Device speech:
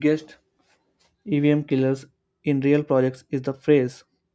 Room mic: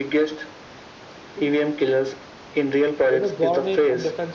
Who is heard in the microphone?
both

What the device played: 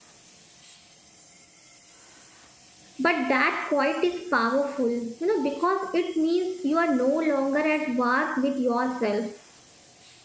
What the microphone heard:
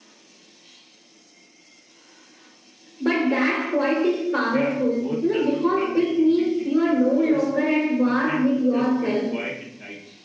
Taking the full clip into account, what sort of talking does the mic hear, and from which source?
both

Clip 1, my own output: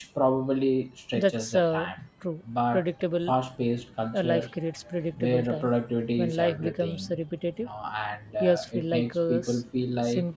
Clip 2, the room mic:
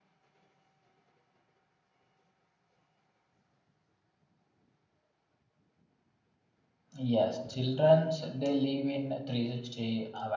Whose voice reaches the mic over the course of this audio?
user only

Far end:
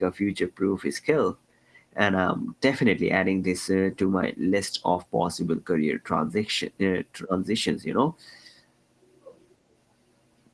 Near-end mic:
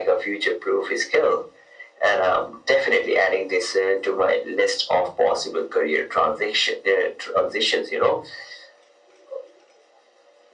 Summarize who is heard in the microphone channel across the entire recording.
echo only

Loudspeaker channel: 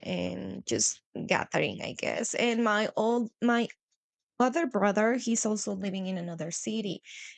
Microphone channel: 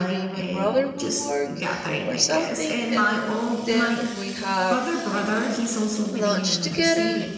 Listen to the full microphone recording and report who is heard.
both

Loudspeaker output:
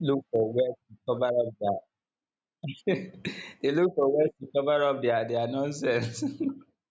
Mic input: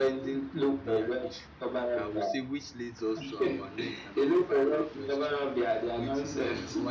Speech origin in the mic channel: both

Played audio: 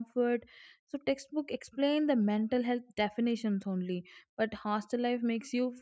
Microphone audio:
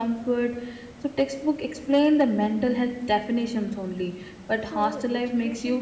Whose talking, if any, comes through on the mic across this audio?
both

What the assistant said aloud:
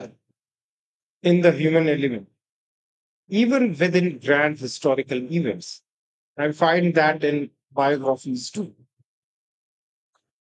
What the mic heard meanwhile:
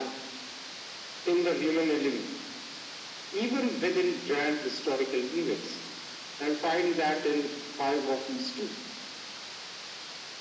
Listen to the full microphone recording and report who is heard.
echo only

